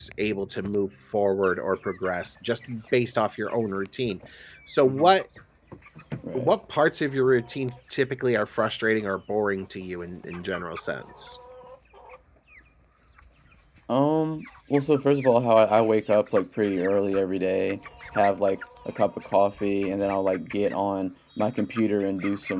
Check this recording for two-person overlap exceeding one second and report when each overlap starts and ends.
none

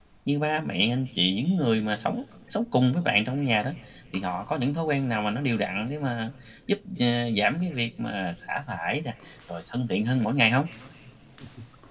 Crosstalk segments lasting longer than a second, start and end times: none

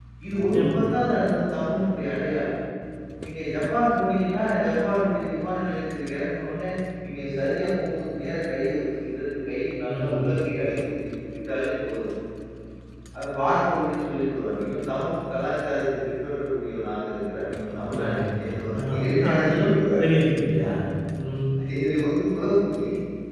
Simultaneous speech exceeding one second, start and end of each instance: 17.8-20.1

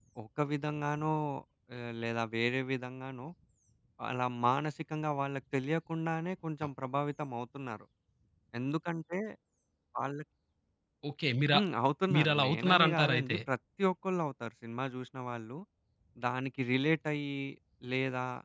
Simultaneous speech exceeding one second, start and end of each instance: 12.1-13.4

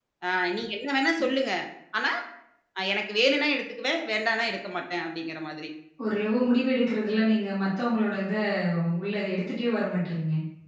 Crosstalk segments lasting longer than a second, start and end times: none

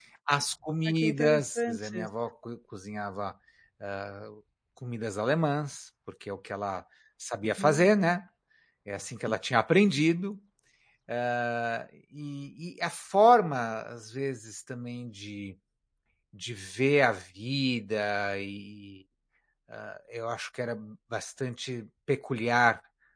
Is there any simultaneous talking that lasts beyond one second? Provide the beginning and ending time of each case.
0.8-2.1

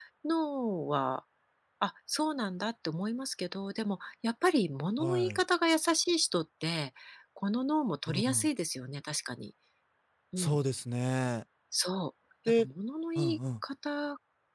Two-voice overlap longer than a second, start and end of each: none

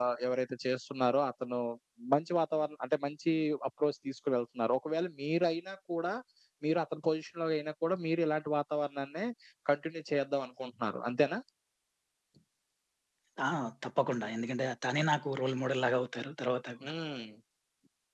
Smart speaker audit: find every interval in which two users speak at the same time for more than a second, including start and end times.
none

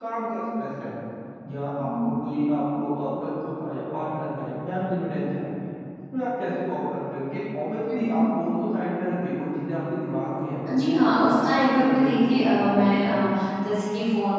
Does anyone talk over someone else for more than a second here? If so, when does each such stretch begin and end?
10.8-13.1

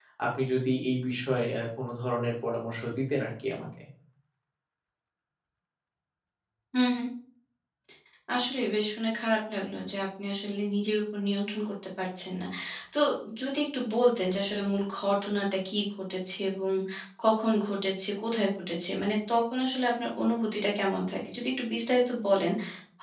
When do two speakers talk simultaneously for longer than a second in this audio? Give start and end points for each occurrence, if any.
none

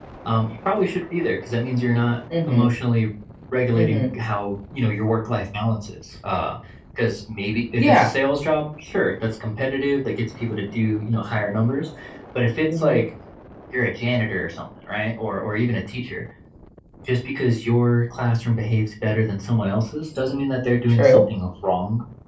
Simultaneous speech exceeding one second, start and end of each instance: none

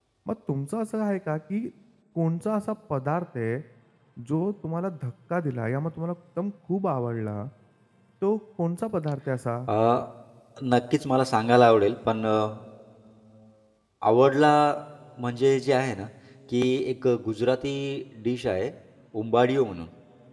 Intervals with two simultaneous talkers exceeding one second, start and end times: none

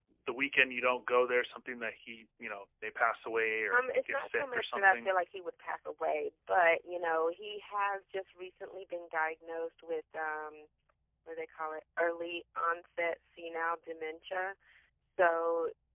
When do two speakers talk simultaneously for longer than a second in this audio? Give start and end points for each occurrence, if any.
3.7-5.1

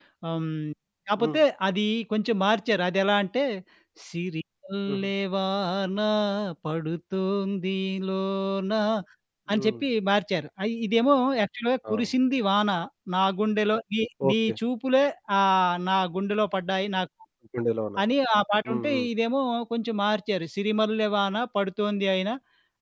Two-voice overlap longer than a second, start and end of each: none

